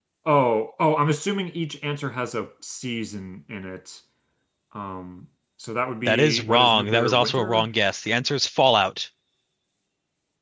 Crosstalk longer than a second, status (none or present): present